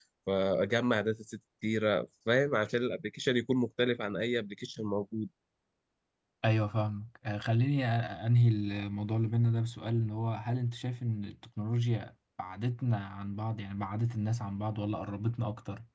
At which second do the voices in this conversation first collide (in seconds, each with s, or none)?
none